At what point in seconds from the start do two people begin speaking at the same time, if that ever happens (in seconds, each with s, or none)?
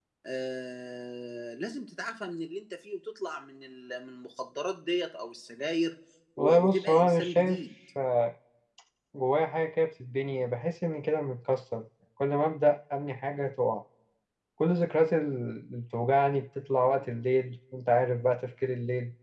6.4 s